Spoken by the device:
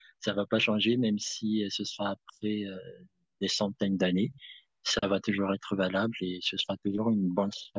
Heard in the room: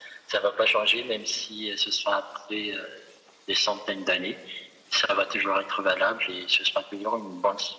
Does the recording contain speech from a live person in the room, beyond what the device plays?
No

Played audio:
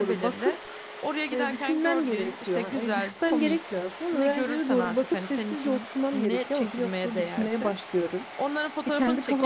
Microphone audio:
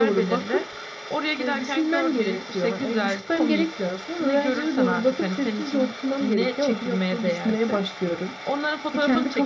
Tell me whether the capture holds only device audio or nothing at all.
Yes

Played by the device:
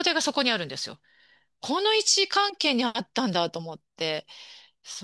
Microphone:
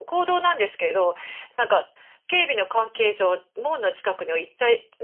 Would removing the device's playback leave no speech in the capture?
No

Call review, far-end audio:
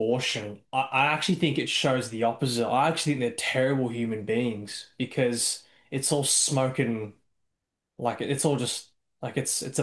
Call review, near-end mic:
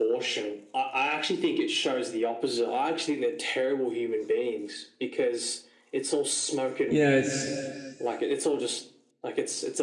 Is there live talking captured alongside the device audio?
Yes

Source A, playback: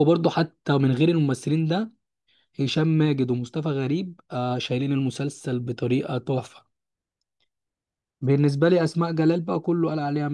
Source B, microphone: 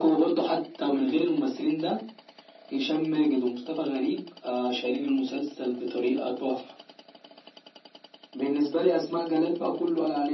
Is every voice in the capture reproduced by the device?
Yes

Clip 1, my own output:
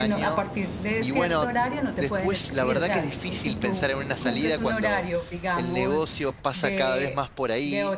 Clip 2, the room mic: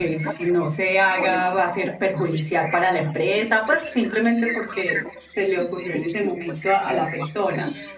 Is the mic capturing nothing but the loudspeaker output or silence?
No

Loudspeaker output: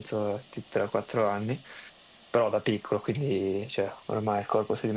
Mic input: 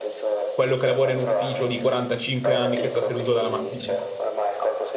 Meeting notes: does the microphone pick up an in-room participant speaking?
Yes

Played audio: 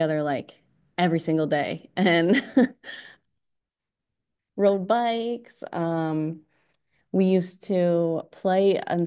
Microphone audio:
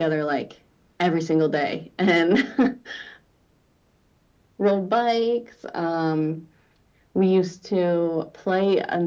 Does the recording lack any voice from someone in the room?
Yes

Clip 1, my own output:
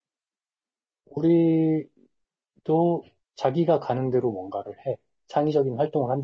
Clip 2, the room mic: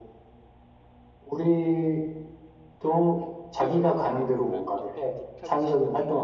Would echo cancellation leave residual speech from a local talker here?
Yes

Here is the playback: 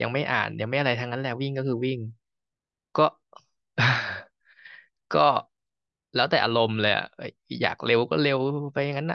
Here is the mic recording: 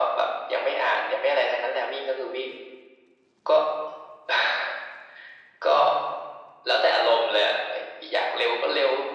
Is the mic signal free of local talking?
Yes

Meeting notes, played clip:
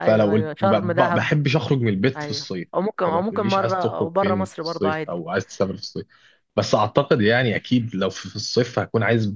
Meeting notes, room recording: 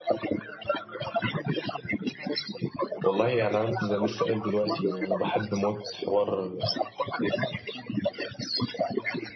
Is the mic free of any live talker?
No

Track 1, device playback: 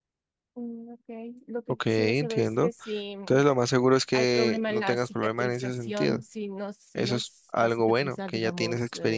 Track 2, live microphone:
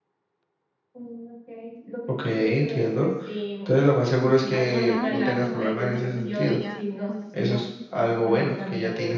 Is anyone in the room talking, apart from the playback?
Yes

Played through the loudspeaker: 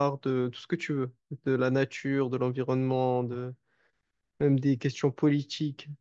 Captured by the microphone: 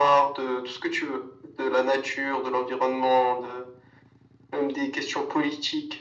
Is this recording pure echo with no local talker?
Yes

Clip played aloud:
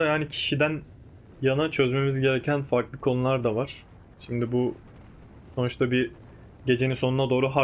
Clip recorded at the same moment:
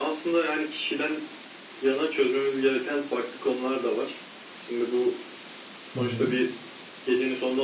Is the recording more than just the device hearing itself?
Yes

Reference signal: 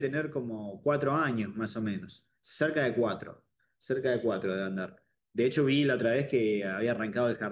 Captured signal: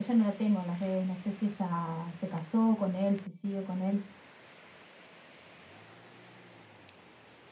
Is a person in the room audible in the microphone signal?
Yes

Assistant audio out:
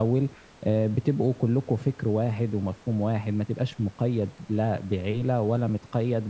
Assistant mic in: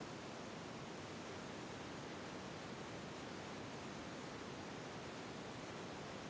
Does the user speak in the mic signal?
No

